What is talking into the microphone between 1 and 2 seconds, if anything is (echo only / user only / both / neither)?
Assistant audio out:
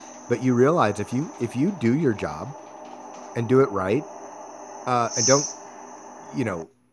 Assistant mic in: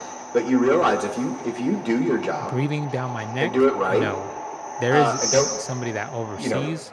echo only